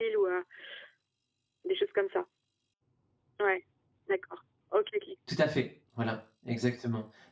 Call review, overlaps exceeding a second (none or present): none